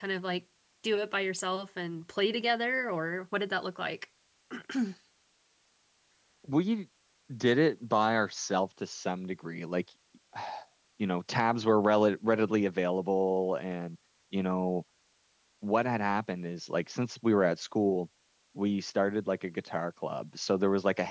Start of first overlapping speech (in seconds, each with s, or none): none